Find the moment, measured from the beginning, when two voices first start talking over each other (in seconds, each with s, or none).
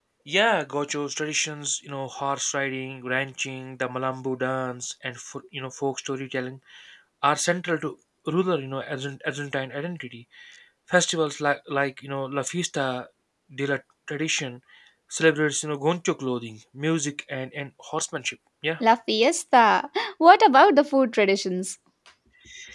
none